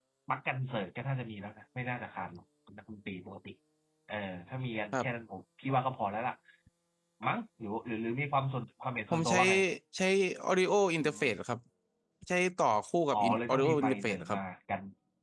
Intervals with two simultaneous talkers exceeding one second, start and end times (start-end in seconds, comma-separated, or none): 13.1-14.4